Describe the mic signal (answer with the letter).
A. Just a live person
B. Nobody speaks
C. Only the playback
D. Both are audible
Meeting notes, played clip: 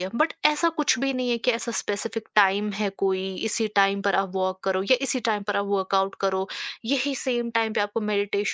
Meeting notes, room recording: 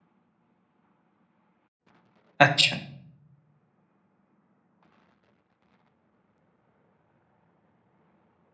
A